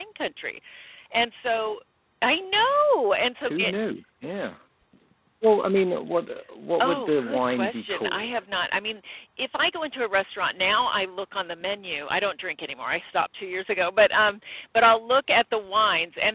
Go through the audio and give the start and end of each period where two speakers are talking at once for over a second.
6.8-8.3

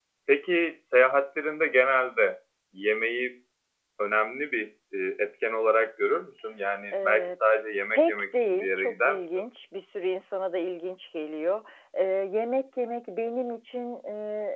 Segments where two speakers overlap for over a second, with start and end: 7.9-9.2

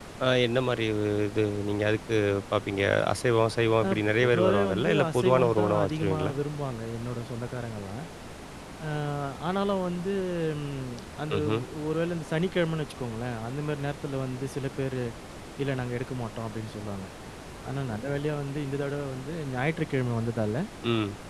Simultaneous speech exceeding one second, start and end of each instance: 3.9-6.3

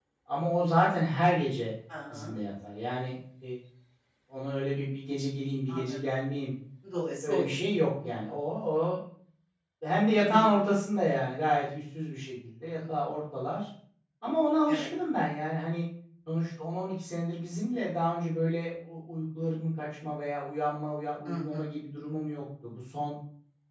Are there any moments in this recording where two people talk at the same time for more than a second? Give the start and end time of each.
none

